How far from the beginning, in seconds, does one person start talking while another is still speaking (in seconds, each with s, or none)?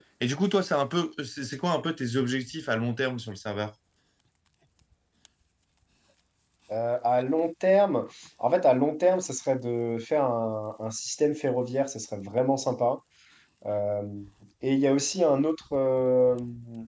none